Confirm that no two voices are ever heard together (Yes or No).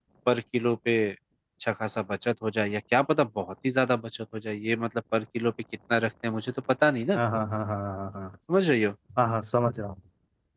Yes